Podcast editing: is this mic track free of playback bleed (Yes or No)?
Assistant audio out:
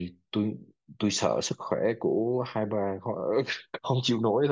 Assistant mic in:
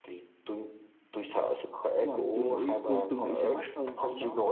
No